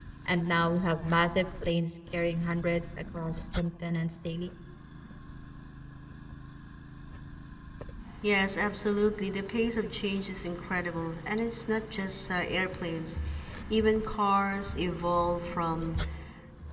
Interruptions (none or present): none